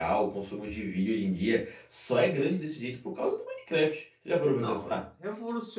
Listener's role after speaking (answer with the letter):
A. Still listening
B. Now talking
B